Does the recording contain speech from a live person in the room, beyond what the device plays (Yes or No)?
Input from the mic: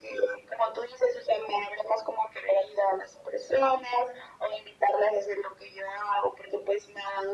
No